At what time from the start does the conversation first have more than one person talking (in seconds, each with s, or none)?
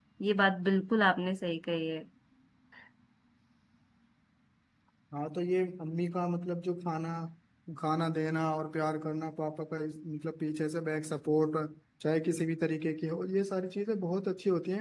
none